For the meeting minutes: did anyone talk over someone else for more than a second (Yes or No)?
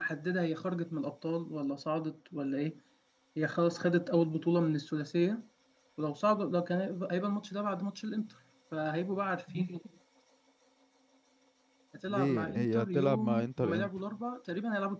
Yes